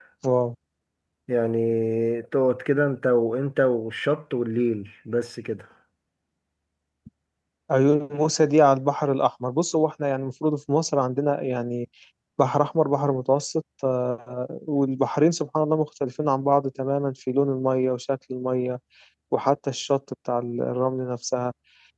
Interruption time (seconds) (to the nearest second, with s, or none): none